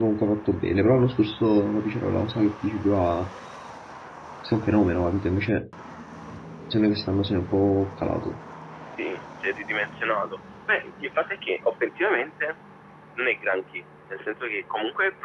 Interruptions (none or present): none